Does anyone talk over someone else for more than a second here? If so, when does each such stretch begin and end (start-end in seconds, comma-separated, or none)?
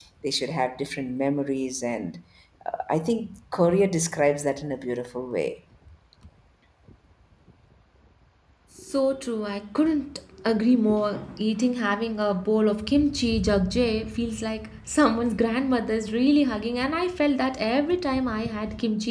none